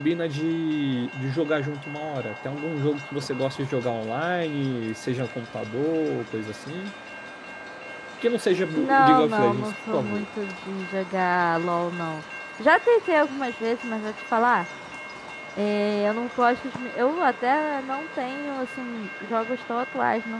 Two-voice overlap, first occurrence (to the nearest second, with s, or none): 9 s